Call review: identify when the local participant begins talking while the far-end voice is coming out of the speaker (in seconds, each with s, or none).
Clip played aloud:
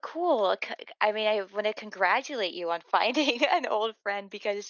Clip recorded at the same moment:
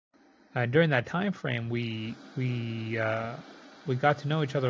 0.5 s